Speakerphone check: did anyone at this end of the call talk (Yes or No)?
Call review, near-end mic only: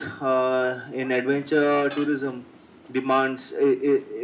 No